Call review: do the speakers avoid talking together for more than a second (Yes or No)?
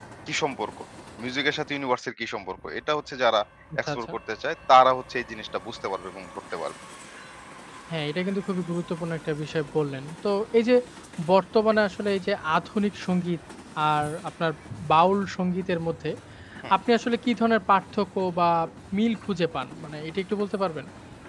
Yes